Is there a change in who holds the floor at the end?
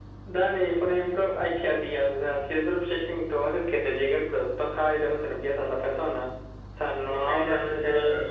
Yes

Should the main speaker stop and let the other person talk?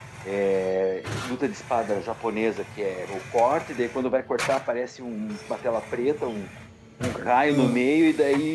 No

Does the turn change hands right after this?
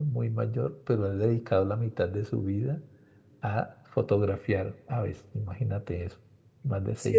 Yes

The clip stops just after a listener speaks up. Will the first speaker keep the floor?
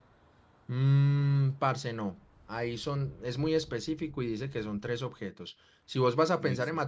Yes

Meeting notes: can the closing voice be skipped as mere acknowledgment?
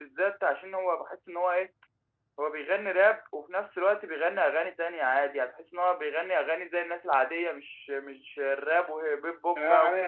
No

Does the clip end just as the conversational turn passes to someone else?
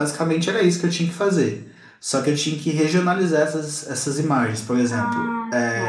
No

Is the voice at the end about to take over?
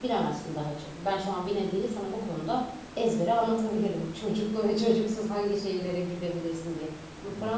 No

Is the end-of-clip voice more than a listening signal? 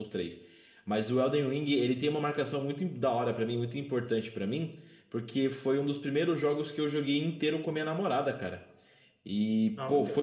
No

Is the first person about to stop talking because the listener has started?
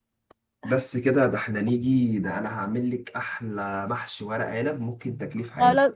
Yes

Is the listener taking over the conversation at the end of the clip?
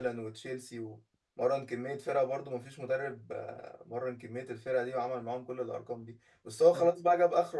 No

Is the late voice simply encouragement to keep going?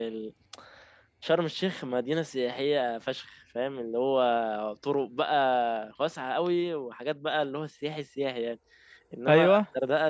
Yes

